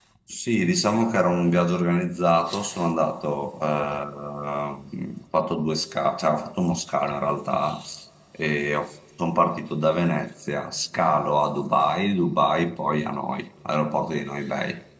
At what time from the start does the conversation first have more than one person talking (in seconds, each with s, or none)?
none